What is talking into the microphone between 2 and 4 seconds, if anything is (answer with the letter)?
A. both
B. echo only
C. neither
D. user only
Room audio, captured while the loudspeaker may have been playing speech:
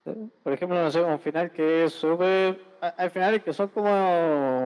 B